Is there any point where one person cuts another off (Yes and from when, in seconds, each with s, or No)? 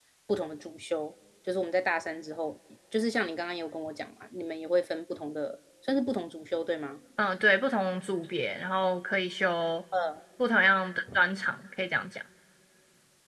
No